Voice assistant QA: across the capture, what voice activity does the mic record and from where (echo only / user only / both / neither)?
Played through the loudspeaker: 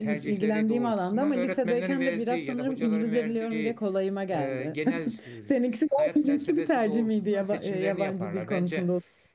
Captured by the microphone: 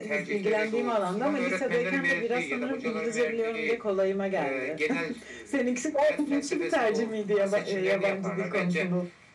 echo only